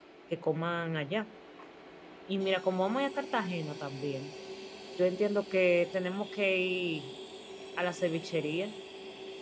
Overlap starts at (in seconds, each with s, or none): none